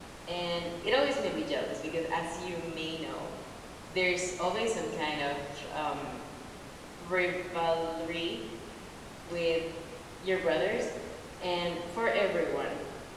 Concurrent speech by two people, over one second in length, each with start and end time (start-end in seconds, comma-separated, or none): none